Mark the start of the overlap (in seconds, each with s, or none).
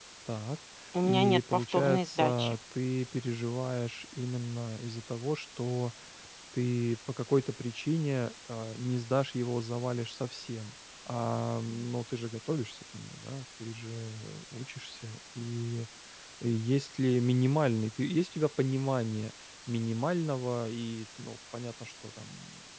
1.0 s